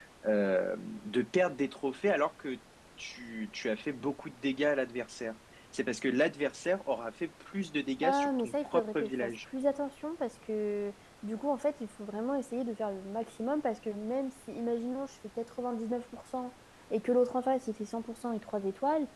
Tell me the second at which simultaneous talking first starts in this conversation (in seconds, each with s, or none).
8.0 s